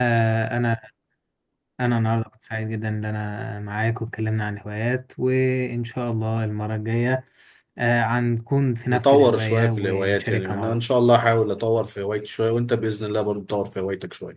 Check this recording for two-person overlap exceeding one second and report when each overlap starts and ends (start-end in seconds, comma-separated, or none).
8.9-10.8